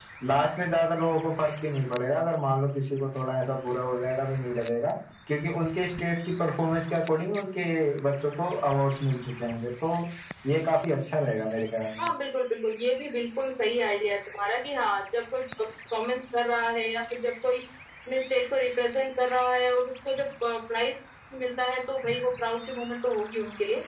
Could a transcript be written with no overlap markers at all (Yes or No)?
Yes